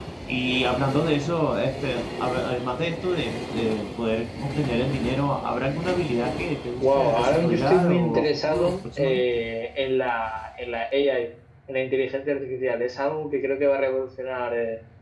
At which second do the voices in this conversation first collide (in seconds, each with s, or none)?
6.8 s